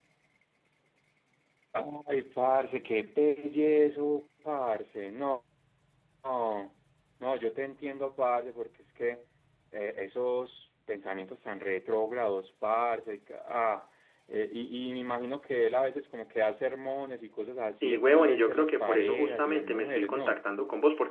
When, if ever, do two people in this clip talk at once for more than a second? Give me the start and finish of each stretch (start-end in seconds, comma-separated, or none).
17.8-20.4